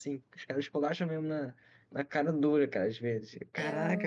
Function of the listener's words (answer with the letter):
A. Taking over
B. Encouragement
A